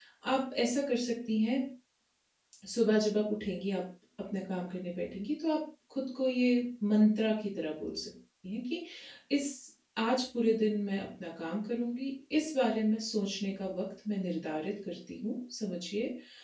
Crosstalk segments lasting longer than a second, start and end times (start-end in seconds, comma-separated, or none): none